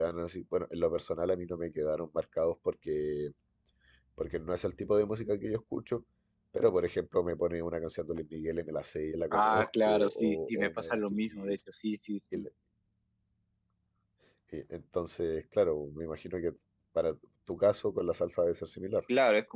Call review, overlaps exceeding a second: present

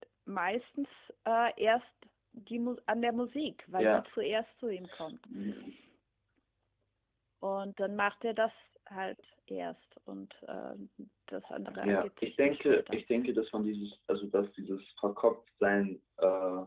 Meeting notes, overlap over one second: present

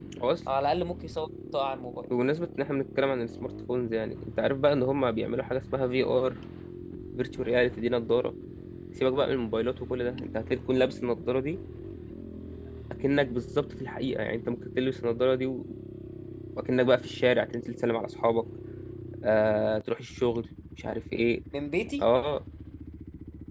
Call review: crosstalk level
none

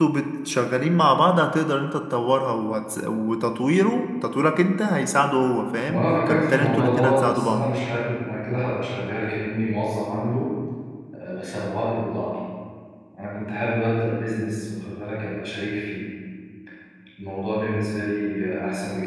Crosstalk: present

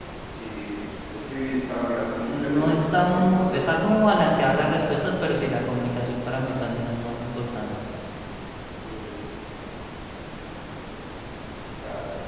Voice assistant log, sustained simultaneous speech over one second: present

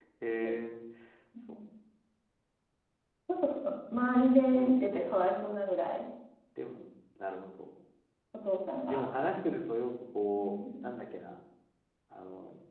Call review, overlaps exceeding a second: none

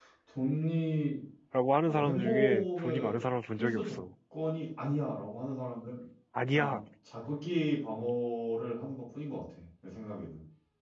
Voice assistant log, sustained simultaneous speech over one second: present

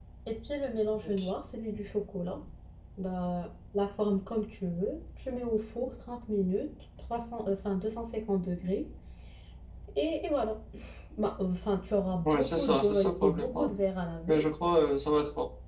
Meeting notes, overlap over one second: present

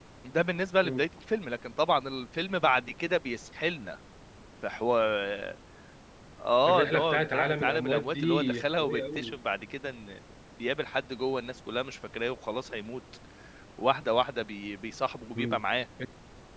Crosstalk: present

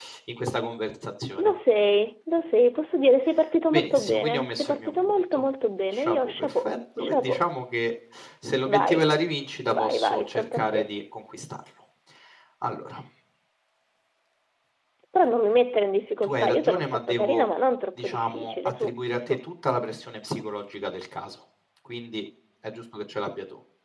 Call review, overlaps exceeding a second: present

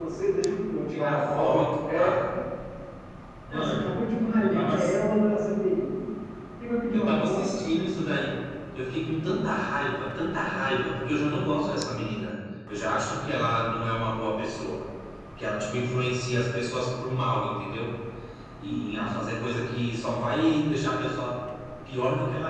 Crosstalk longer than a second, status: present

